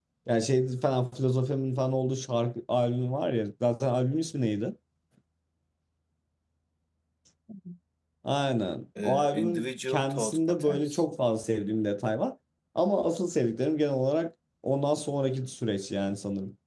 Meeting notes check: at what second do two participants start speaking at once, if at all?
9 s

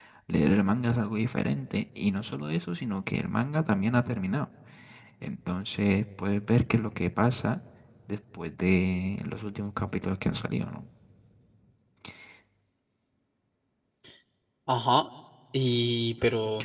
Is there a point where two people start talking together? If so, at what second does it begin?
none

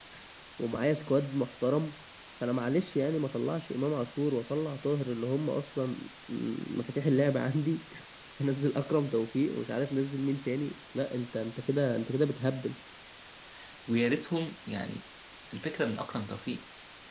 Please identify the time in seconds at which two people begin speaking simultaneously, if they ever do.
none

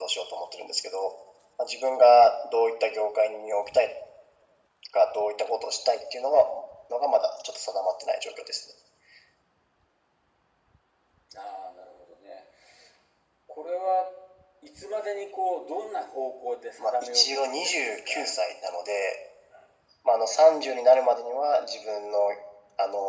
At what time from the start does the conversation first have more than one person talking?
17 s

